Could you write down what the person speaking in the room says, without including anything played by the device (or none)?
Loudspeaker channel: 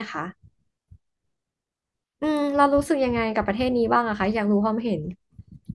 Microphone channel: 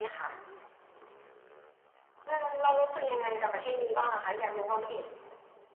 none